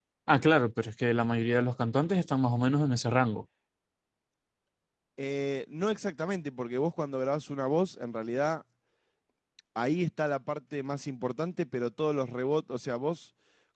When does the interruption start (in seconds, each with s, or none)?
none